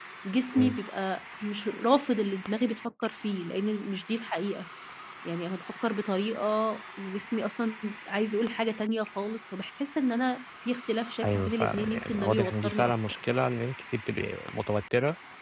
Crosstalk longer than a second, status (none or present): present